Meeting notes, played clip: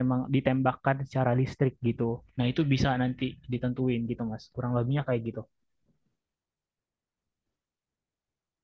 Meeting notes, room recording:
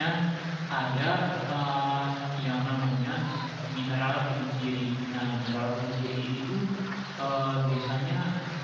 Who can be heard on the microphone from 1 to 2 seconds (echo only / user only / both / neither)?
user only